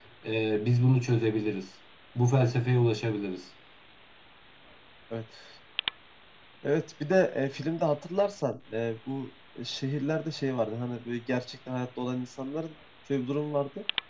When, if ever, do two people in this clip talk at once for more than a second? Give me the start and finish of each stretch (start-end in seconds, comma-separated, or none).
none